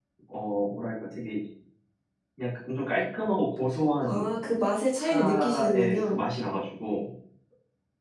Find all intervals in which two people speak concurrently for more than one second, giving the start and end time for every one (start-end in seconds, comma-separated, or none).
5.0-6.2